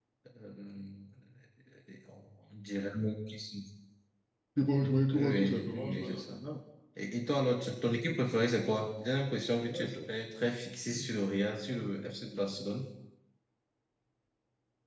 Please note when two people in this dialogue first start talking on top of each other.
5.1 s

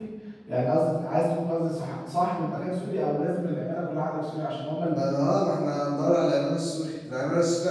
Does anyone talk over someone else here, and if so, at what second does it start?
none

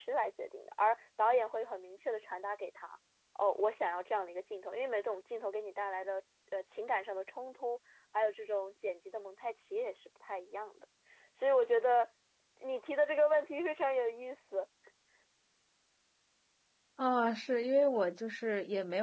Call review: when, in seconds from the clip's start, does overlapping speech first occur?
none

